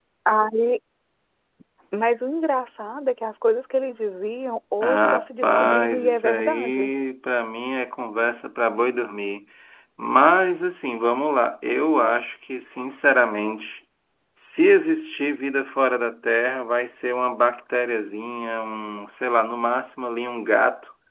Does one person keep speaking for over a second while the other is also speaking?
Yes, from 4.8 s

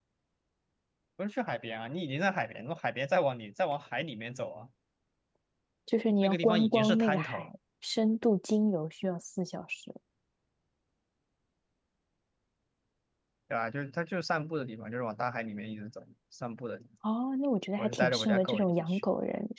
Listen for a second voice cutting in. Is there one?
Yes, from 6.2 s

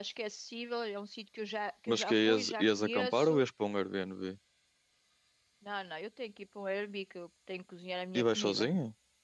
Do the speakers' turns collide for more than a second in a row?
Yes, from 1.9 s

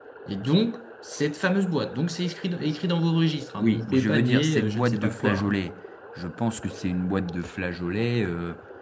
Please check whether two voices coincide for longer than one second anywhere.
Yes, from 3.6 s

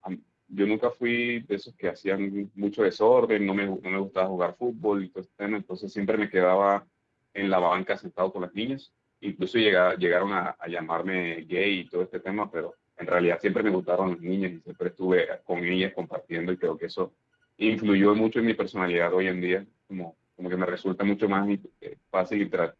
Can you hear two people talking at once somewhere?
No

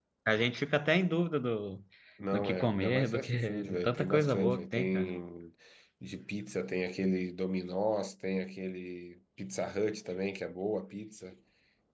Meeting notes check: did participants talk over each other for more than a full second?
Yes, from 2.3 s

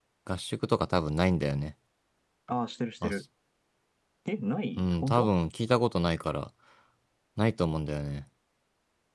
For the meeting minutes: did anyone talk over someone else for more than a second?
No

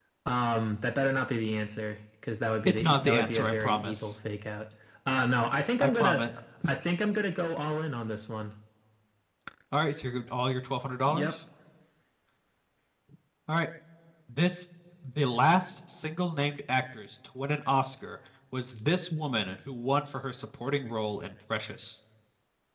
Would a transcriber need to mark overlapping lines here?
Yes, from 2.7 s

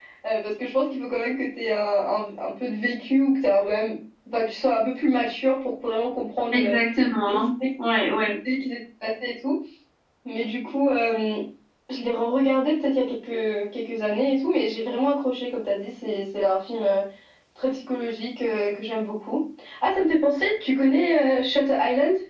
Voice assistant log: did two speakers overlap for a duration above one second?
No

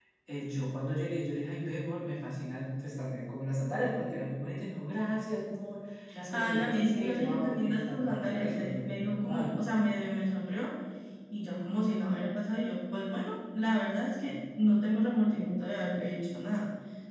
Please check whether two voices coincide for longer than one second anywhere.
Yes, from 6.1 s

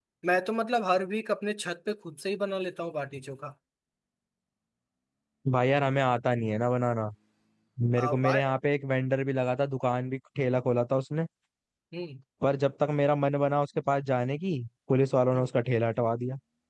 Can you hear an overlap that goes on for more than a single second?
No

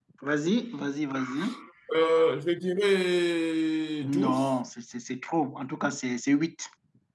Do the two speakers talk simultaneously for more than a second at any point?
No

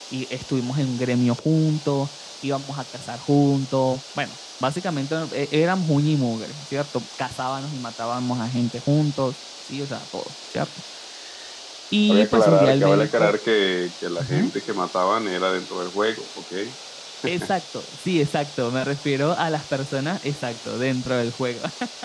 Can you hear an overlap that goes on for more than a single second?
Yes, from 12.1 s

